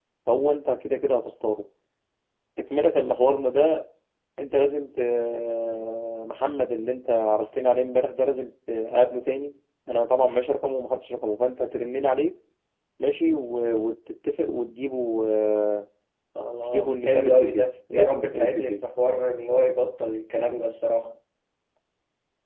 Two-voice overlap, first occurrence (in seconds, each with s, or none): 16.6 s